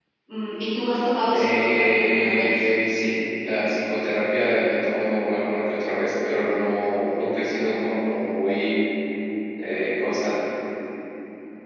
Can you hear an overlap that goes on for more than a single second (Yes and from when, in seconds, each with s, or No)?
Yes, from 1.3 s